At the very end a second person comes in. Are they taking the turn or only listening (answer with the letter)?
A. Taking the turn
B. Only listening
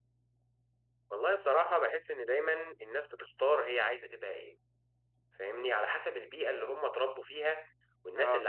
B